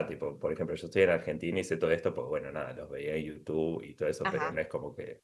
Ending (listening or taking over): listening